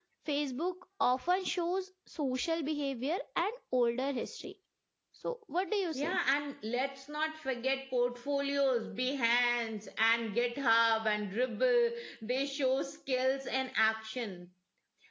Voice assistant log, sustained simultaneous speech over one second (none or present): none